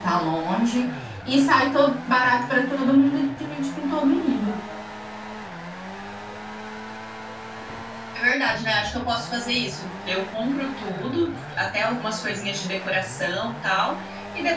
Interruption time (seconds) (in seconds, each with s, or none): none